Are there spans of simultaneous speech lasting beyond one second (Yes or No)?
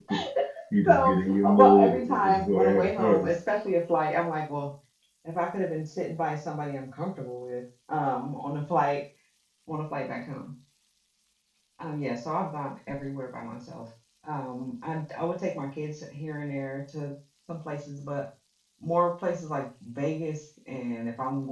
Yes